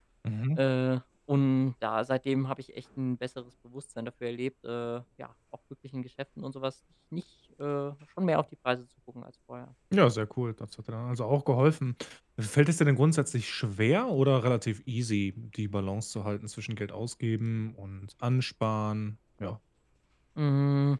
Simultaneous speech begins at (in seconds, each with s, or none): none